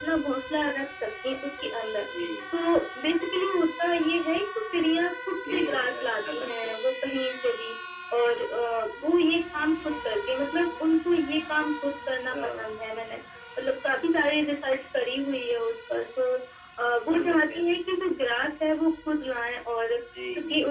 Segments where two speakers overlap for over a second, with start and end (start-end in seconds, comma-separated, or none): 5.5-6.9